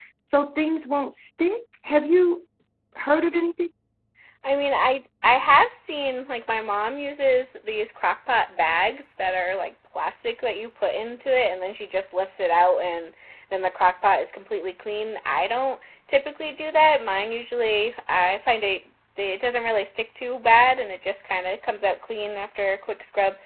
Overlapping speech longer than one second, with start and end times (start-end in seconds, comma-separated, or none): none